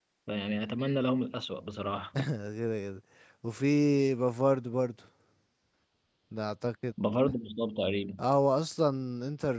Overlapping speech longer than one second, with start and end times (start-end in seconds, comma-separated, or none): none